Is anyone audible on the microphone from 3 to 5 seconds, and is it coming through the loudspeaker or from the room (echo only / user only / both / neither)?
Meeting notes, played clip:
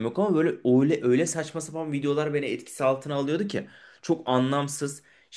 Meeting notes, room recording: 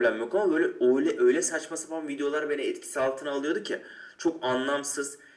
echo only